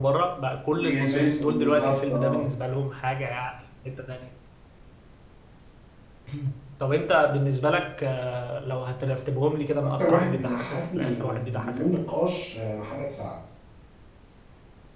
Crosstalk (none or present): present